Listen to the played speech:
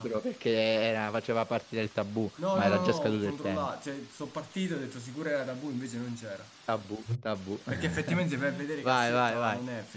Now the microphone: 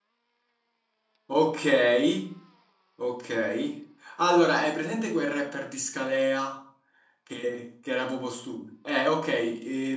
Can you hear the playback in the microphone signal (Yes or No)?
No